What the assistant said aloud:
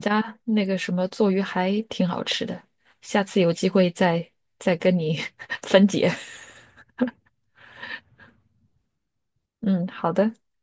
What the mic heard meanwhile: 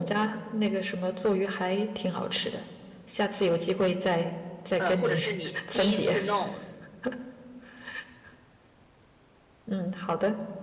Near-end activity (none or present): present